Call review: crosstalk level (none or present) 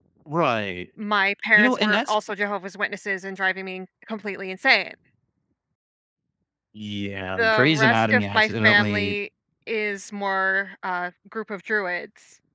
present